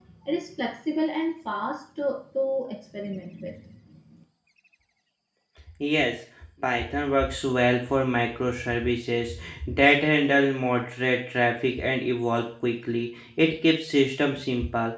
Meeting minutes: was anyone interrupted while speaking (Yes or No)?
No